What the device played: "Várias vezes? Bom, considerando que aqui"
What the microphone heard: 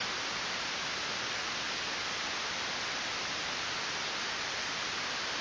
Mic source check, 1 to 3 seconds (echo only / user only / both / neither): neither